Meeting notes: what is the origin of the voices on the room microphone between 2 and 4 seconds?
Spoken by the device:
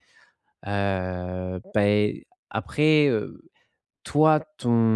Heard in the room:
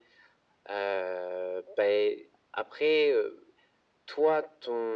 echo only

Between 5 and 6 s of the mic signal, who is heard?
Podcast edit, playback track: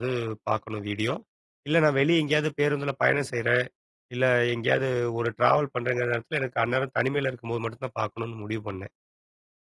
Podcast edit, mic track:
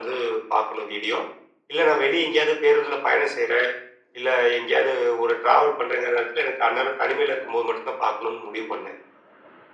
echo only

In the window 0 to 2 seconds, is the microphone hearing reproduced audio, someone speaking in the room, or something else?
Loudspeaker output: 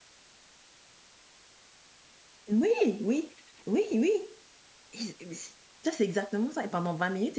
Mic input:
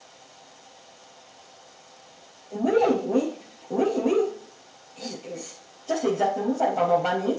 neither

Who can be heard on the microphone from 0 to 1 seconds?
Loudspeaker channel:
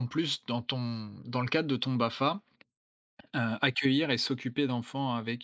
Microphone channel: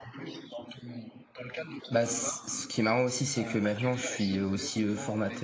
echo only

